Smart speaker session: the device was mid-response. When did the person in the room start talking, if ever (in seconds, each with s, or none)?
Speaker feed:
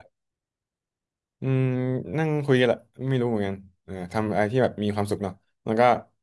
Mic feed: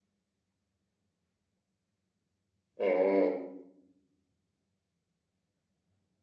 2.8 s